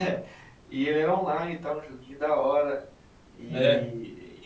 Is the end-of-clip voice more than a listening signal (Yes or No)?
No